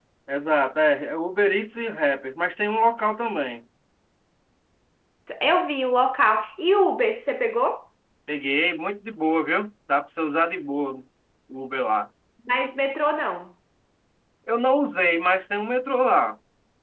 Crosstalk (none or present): none